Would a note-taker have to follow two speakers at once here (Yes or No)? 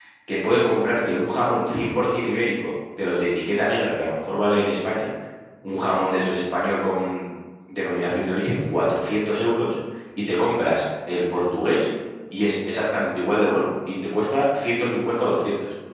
No